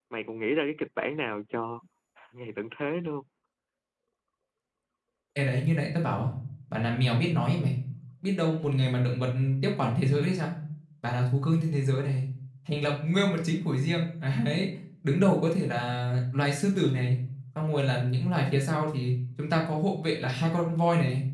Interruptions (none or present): none